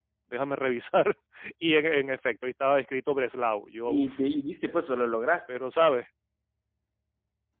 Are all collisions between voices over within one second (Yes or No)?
Yes